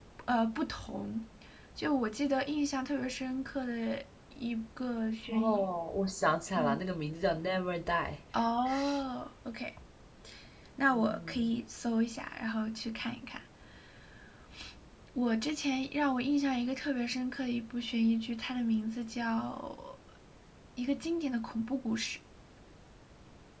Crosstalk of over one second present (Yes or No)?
No